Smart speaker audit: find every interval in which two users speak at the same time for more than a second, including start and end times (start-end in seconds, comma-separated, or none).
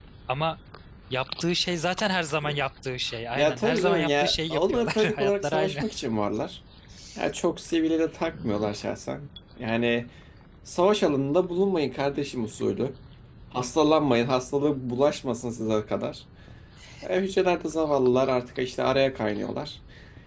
3.3-5.8